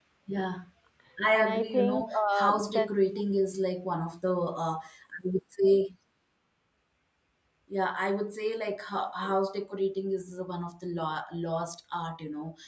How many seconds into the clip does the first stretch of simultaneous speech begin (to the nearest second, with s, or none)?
1 s